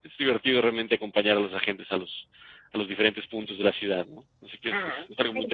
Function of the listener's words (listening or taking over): taking over